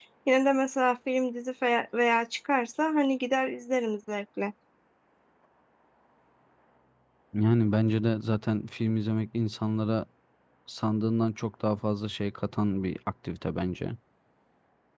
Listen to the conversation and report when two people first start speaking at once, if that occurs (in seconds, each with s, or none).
none